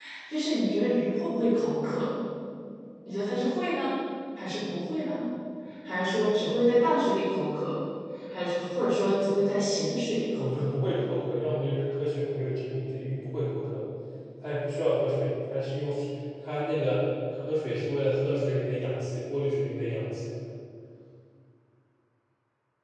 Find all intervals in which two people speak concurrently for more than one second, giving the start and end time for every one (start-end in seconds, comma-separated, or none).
none